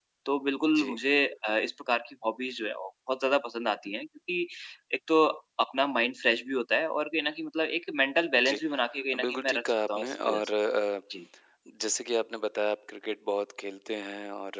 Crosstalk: present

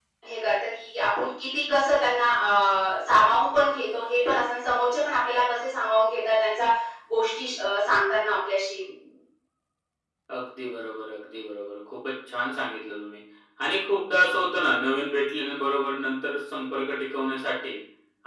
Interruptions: none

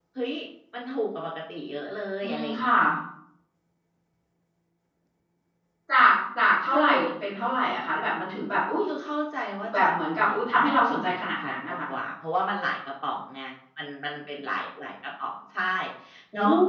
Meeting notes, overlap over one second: present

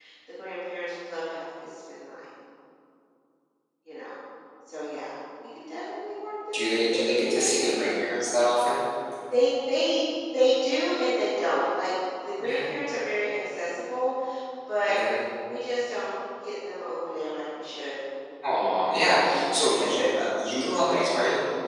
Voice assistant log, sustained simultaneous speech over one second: present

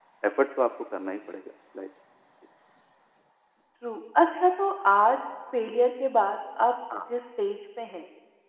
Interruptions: none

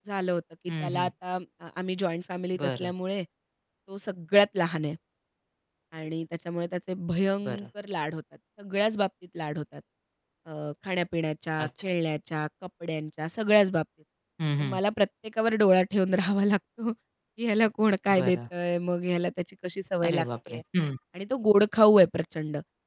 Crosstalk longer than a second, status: none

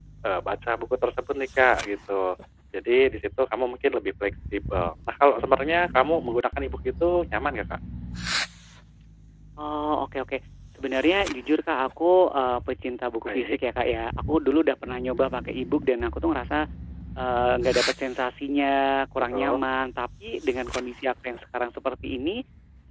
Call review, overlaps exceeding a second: none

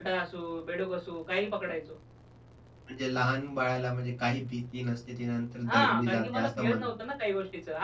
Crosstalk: present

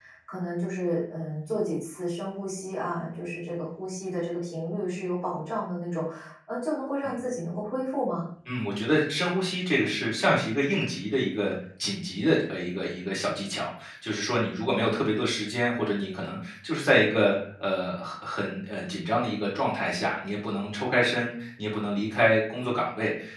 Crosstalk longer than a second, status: none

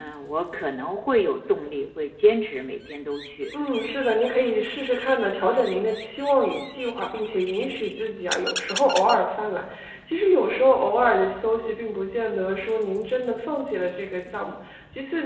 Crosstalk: none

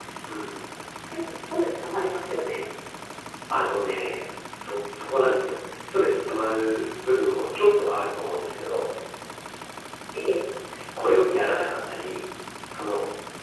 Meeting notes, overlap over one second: none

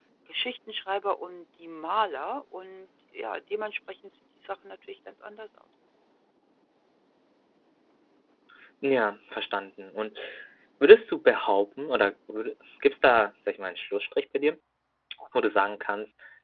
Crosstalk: none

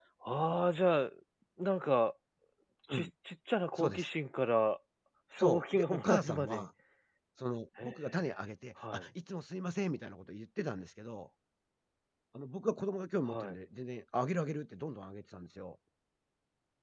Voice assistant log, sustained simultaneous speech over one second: present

